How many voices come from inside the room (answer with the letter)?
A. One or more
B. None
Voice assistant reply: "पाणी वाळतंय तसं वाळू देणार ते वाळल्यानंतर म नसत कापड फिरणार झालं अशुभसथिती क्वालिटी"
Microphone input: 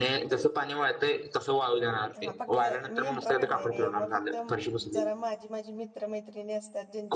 A